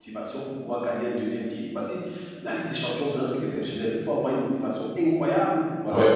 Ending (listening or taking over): listening